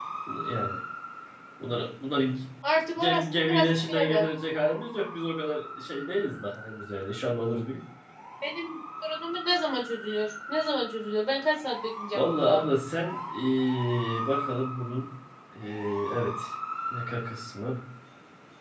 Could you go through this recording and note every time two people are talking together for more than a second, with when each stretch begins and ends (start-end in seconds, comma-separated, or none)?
3.0-4.3